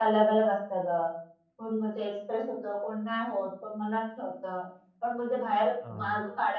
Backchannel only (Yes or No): Yes